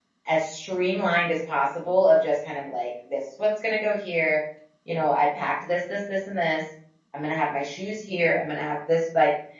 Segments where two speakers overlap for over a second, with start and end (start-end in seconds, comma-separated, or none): none